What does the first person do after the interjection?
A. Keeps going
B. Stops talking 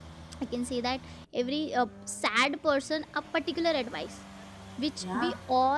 A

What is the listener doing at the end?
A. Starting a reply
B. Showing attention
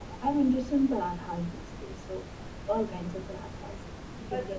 A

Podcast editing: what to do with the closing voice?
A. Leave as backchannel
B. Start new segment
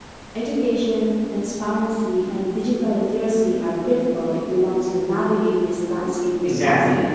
B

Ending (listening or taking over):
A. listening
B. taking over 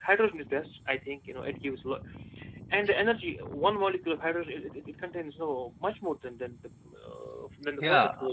B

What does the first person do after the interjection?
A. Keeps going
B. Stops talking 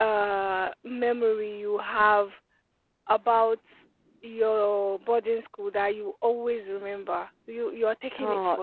B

